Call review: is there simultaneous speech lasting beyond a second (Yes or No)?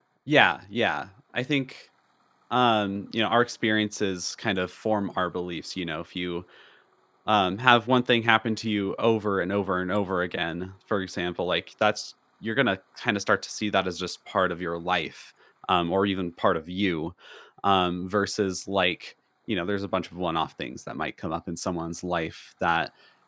No